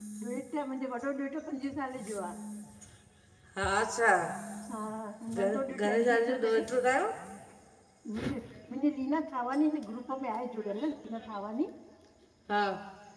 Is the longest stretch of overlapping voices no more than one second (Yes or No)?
No